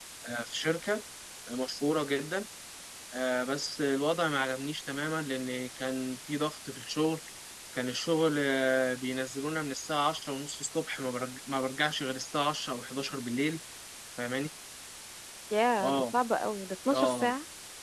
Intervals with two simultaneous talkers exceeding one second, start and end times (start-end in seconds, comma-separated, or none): none